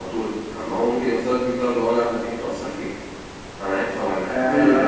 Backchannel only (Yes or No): No